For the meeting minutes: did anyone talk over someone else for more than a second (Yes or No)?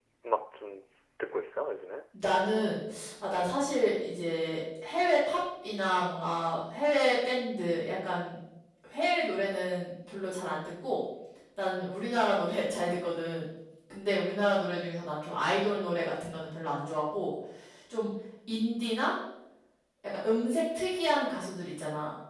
No